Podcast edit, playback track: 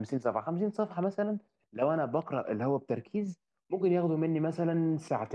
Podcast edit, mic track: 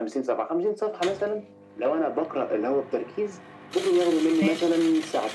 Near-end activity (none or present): present